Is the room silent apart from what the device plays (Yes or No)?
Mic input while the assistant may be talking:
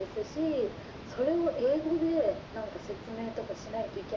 Yes